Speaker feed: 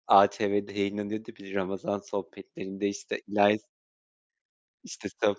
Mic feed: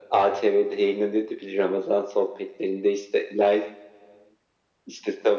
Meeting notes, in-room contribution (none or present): none